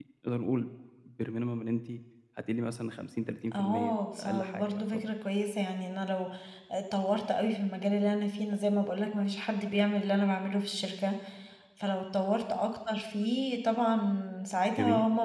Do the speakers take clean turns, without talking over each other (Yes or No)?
No